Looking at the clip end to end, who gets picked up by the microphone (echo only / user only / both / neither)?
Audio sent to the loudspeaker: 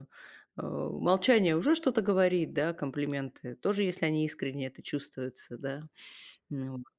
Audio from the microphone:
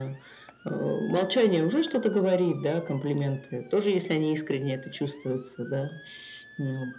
echo only